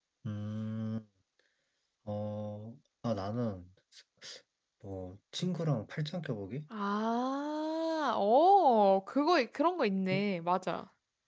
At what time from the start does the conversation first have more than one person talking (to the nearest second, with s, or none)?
none